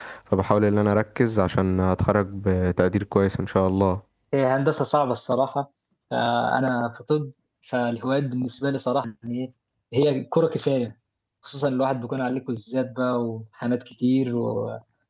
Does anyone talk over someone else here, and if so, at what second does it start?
none

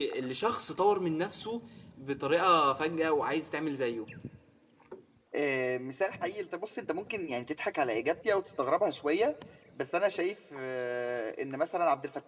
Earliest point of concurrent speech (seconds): none

